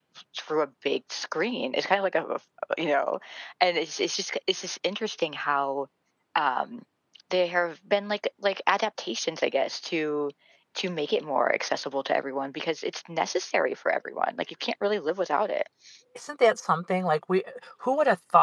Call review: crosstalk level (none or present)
none